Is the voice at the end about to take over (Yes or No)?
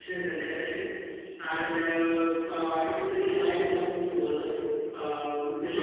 No